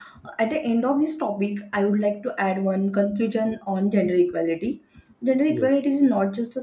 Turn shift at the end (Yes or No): No